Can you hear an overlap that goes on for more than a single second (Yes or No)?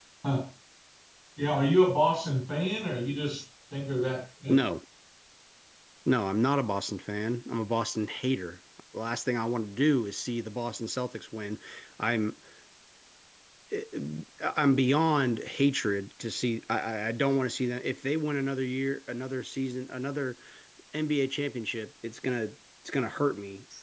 No